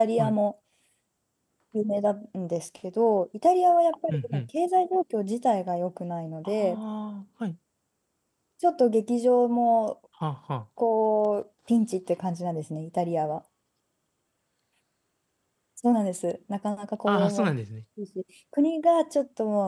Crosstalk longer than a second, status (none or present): none